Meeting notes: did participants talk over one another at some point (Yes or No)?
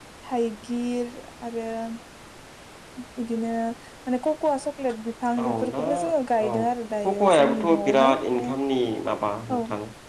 Yes